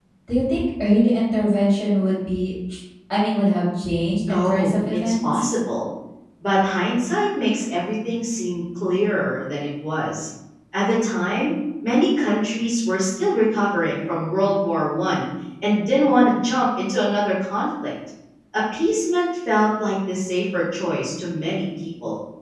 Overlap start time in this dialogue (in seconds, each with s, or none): 4.3 s